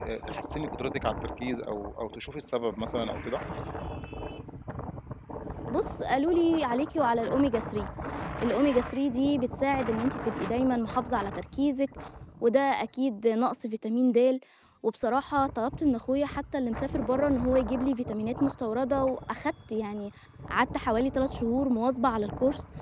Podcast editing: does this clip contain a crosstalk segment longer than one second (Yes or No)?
No